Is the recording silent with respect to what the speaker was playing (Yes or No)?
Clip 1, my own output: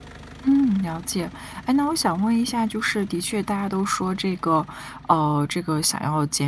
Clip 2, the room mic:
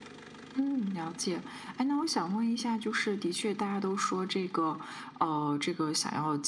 No